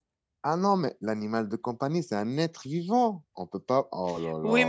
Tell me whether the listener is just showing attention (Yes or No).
No